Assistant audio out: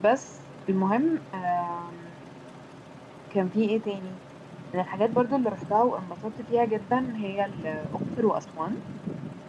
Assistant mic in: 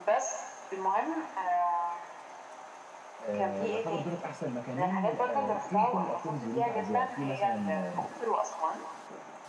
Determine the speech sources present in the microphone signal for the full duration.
both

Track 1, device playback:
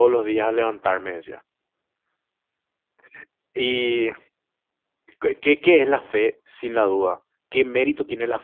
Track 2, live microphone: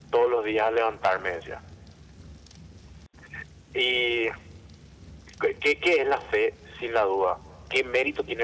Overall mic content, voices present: echo only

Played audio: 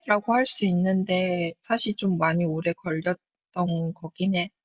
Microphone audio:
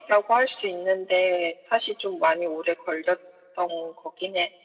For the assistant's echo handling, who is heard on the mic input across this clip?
echo only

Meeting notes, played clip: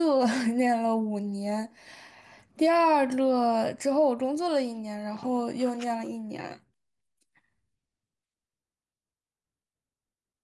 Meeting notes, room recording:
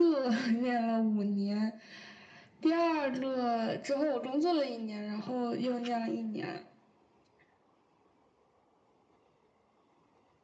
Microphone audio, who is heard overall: echo only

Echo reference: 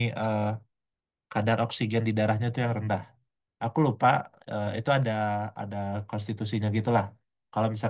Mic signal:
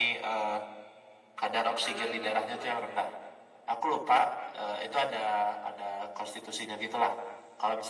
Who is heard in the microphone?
both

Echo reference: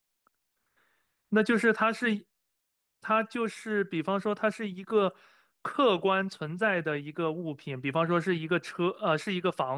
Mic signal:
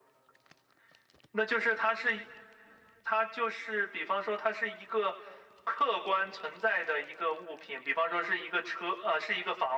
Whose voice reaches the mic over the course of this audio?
echo only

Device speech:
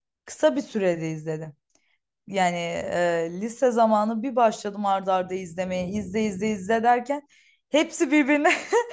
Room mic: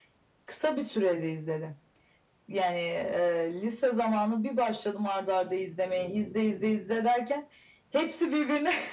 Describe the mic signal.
echo only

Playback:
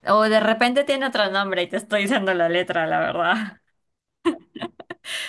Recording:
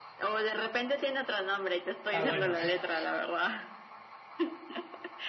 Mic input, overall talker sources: both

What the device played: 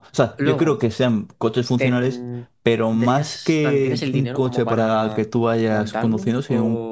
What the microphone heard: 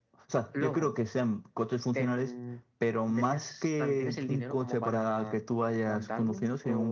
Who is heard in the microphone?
echo only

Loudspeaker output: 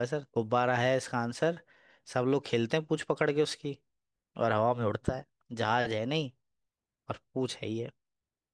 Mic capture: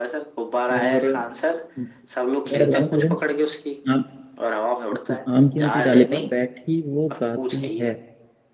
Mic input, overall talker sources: both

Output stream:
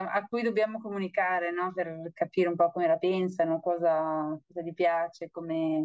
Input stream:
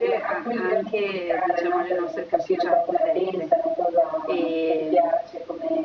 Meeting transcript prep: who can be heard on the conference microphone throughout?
both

